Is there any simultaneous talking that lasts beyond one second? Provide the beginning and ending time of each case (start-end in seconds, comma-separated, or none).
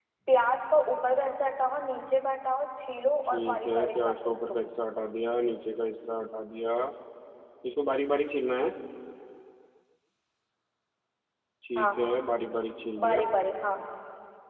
3.2-4.7